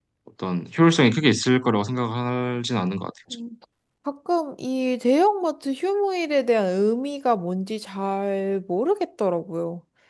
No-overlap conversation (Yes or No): Yes